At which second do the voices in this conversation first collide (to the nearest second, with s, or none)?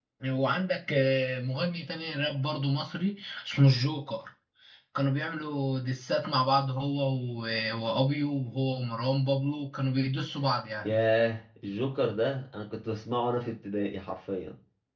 none